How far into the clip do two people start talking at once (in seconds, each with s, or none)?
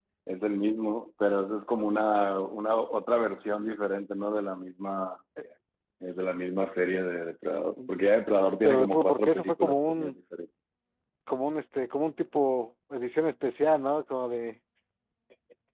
8.6 s